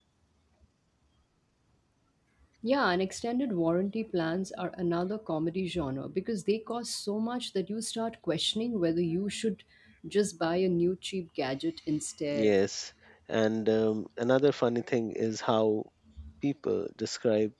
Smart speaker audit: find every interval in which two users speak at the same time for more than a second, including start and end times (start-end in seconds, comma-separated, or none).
none